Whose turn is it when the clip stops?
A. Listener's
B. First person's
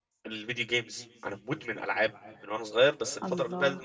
B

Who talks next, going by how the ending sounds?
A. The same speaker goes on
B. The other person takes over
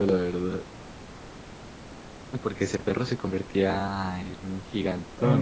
B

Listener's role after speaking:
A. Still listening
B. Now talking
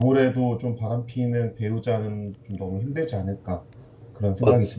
B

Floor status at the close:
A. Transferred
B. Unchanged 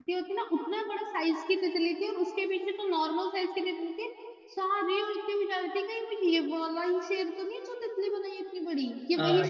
A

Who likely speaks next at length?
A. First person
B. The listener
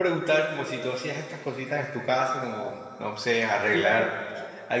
A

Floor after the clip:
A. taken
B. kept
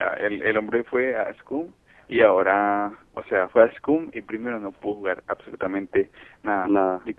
B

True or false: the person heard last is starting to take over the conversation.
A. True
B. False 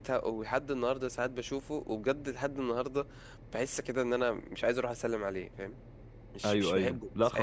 A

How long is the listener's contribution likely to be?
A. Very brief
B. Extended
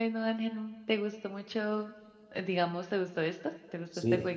B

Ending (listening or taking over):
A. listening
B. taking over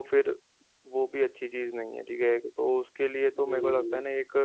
B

